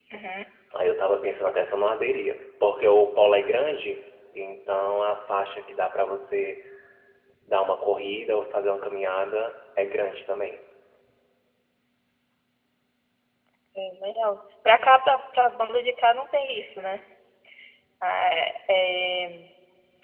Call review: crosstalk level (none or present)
none